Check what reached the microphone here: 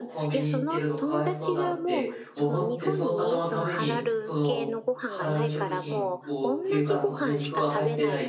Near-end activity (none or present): present